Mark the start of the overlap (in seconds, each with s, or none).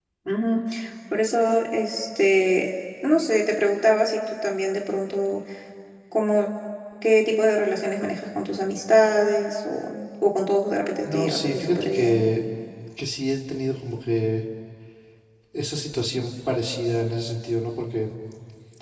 11.1 s